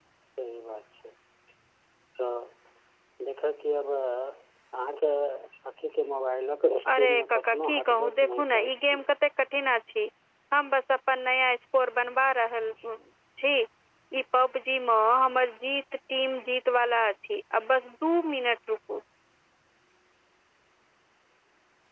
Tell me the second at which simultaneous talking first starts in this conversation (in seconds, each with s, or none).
6.8 s